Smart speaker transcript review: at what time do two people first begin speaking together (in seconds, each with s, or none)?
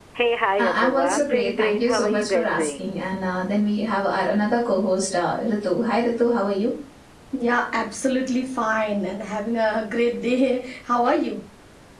0.6 s